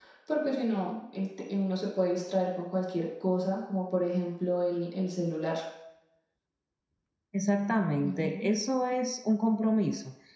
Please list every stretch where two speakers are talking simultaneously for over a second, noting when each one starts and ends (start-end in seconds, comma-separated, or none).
none